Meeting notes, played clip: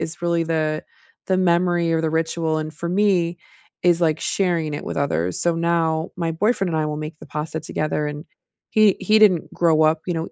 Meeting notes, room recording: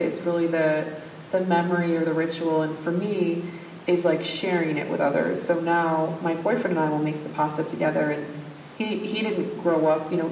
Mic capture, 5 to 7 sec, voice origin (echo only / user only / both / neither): echo only